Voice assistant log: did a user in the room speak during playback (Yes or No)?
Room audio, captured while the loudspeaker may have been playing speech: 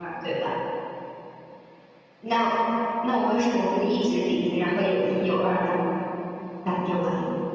Yes